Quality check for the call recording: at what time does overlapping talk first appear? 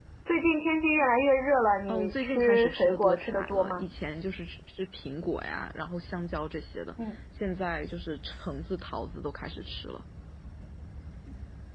1.9 s

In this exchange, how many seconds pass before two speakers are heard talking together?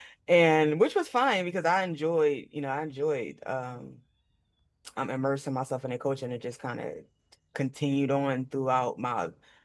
none

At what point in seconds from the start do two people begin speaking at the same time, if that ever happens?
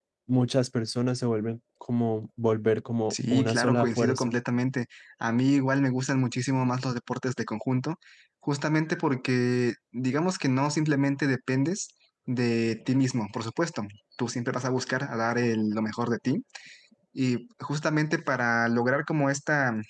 3.1 s

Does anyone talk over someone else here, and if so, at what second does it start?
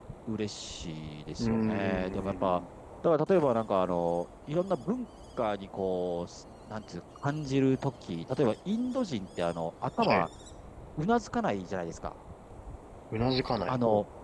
1.4 s

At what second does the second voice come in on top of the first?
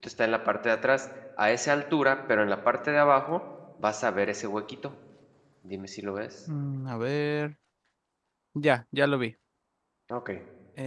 none

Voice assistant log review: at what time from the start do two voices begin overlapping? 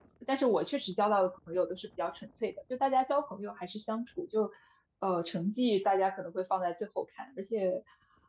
none

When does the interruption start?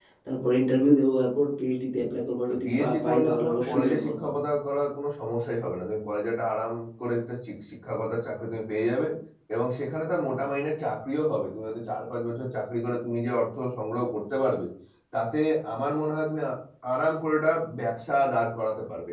2.5 s

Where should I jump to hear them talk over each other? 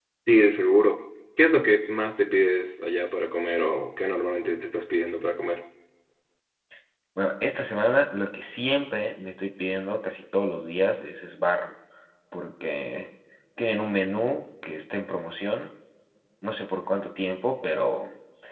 none

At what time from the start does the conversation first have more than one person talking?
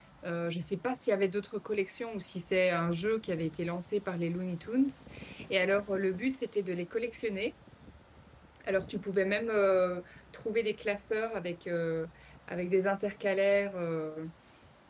none

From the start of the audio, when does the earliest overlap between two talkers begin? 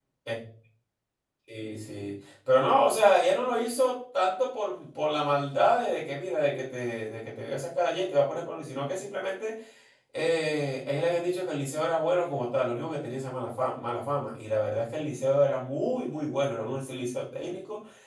none

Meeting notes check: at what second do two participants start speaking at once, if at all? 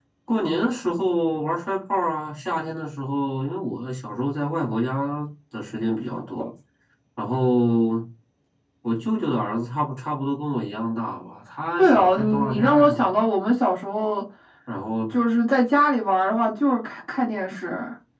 11.8 s

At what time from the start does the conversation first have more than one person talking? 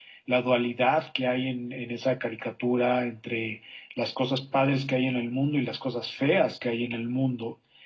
none

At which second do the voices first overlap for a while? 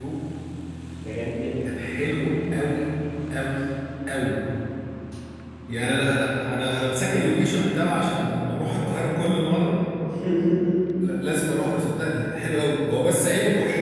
5.8 s

